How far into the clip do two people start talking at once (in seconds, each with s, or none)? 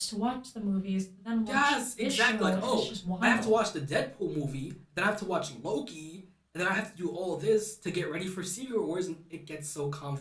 1.5 s